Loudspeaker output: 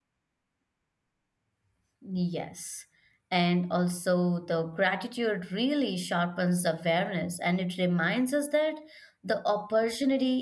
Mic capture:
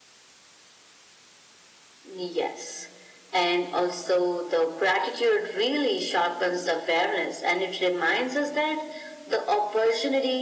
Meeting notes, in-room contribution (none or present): none